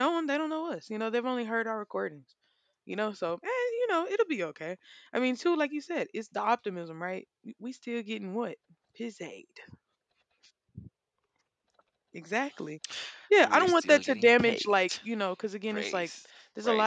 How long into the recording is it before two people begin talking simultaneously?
13 s

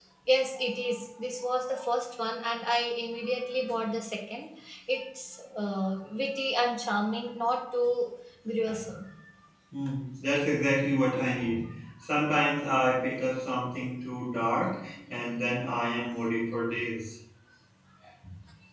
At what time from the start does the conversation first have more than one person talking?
none

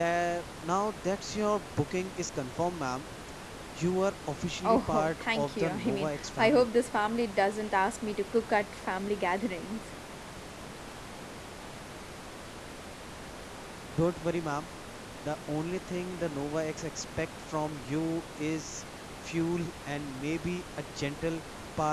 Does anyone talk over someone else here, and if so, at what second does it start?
5 s

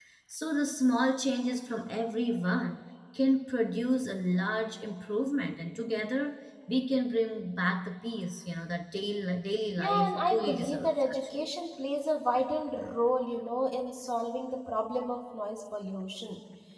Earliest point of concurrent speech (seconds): 10 s

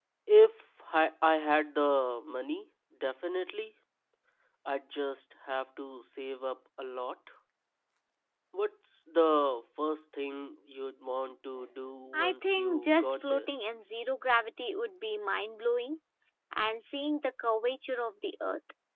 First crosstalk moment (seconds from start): 12 s

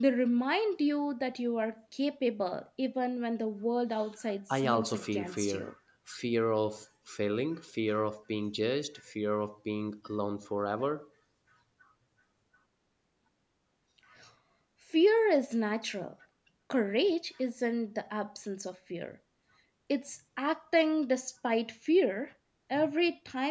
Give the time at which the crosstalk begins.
4 s

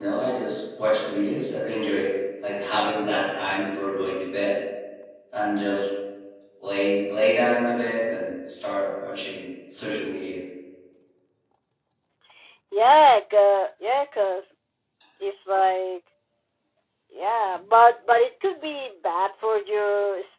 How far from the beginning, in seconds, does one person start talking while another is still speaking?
none

